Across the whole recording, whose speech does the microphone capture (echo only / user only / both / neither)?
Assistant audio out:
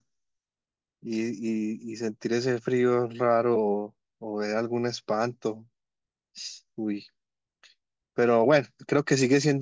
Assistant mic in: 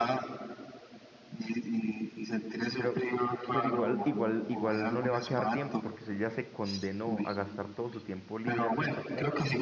both